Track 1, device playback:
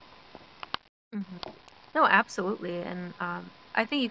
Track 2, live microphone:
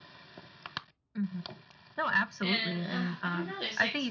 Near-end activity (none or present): present